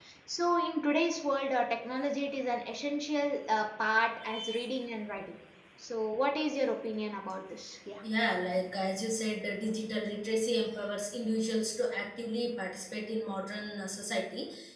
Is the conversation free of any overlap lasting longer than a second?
Yes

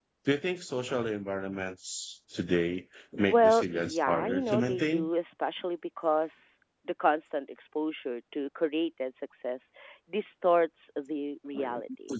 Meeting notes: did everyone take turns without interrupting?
No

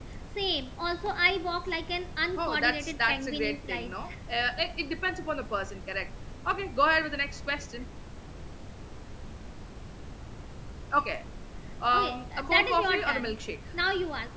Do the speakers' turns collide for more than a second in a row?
Yes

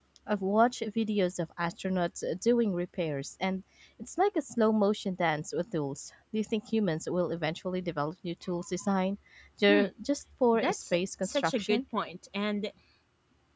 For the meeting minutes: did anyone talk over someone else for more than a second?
Yes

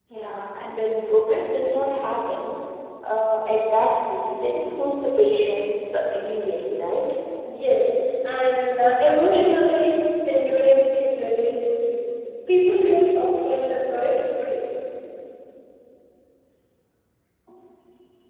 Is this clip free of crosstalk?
Yes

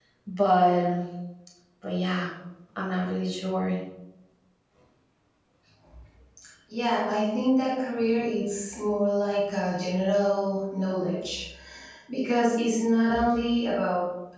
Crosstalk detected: No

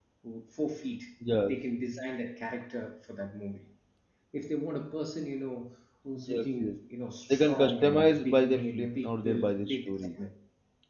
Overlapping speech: Yes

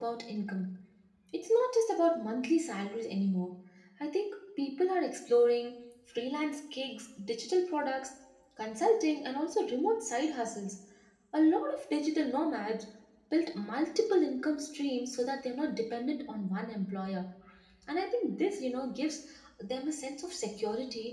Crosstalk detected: No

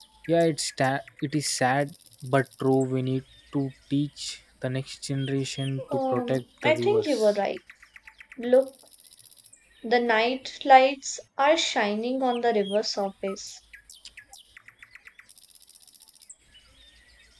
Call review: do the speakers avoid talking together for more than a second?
No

